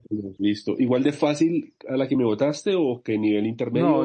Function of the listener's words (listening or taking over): taking over